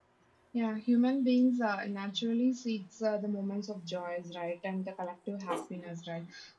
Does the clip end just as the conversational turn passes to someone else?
No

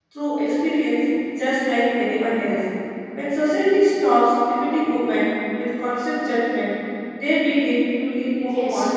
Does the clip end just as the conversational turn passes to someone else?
Yes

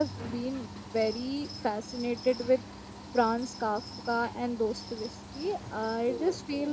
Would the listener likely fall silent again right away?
Yes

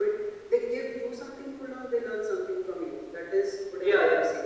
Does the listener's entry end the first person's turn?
Yes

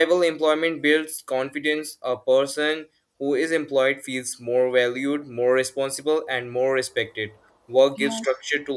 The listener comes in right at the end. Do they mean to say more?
No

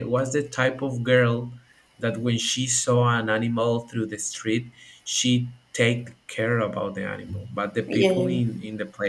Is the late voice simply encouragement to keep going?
Yes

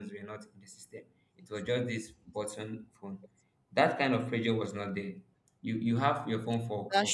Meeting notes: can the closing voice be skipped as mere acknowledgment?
Yes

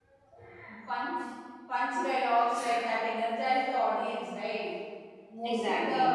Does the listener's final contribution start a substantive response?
No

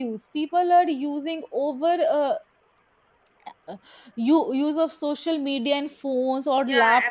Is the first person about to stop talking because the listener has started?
Yes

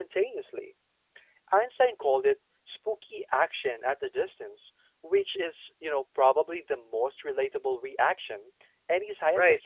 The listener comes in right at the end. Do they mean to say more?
Yes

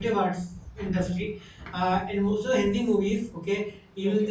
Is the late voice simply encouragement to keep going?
Yes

